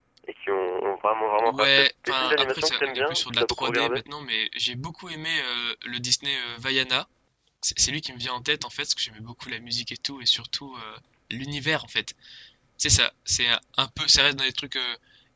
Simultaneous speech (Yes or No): Yes